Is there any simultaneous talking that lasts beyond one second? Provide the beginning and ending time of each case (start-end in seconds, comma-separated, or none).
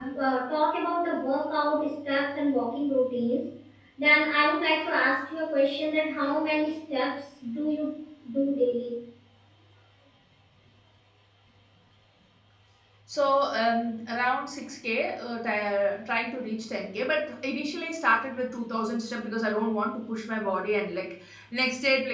none